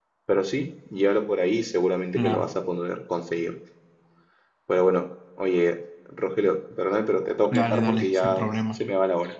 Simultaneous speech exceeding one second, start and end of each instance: 7.5-8.8

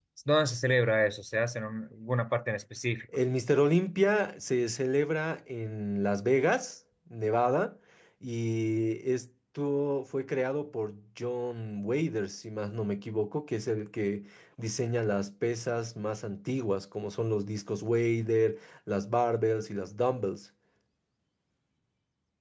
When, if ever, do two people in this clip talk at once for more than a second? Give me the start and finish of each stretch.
none

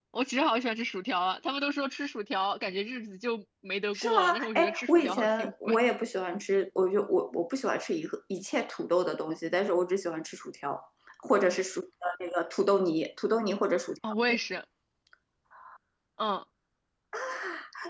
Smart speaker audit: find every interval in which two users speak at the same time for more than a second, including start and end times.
3.9-5.8

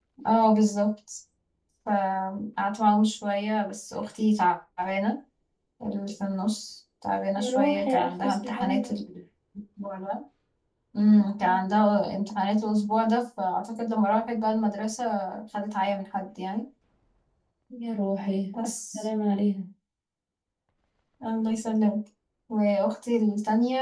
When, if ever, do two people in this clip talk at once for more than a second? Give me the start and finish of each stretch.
7.4-9.0

